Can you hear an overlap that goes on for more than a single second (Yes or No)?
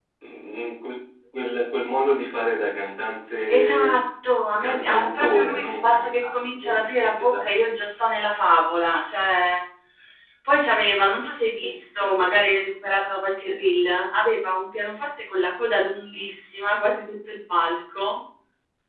Yes